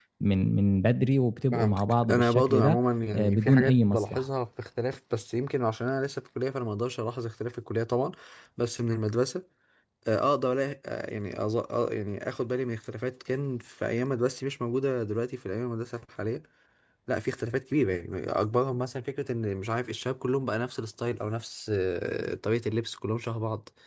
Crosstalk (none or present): present